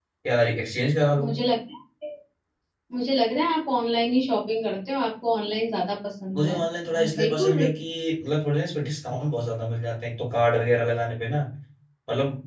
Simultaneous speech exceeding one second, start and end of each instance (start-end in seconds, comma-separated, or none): 6.3-7.7